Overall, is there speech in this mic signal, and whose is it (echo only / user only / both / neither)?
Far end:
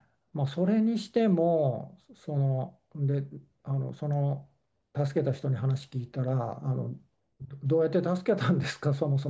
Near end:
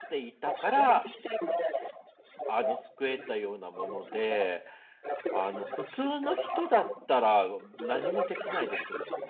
both